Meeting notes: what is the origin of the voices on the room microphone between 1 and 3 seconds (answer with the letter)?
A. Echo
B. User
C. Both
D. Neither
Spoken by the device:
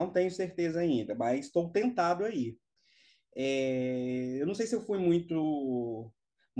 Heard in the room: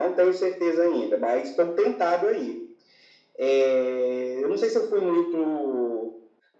A